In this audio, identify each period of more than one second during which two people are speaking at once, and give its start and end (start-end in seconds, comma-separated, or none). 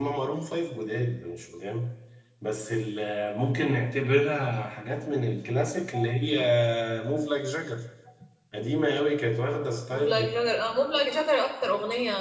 none